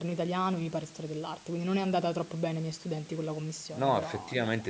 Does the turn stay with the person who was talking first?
No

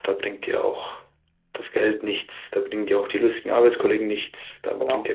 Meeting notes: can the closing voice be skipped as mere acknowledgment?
Yes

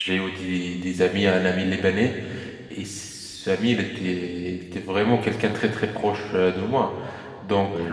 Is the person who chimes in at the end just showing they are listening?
Yes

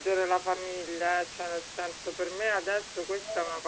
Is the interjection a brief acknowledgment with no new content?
Yes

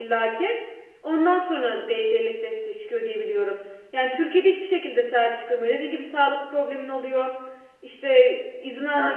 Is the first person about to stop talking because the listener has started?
No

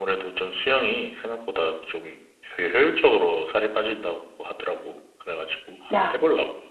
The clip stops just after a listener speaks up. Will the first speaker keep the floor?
No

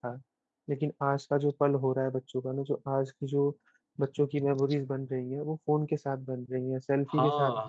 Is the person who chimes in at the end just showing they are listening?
No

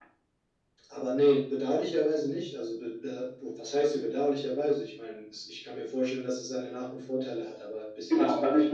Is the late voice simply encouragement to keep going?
No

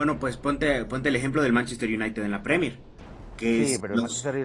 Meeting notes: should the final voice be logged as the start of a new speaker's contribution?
Yes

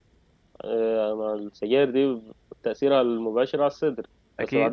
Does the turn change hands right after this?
No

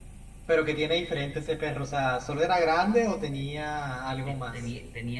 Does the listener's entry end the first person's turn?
Yes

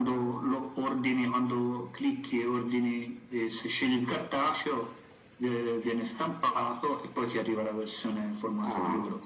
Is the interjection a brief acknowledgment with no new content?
No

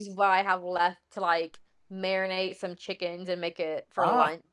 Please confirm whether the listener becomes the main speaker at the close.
Yes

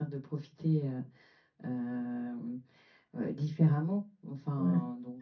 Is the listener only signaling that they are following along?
Yes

